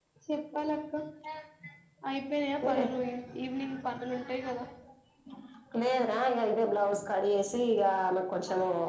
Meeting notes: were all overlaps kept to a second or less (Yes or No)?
Yes